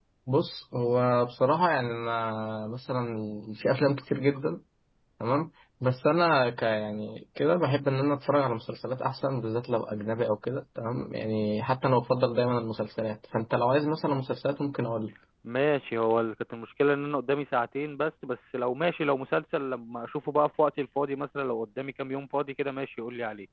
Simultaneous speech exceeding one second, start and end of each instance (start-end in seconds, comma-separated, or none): none